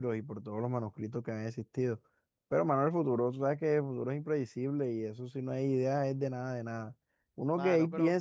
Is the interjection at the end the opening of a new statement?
No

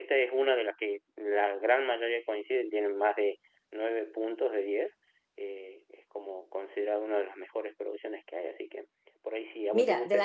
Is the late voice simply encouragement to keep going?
No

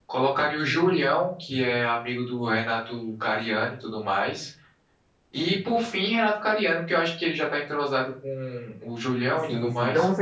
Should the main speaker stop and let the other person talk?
Yes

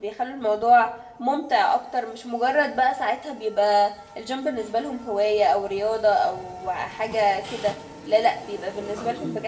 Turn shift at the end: No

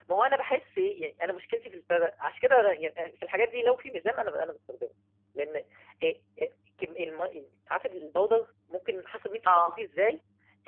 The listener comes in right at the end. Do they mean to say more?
No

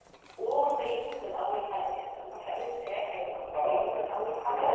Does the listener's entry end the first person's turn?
Yes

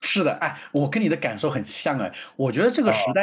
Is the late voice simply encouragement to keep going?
Yes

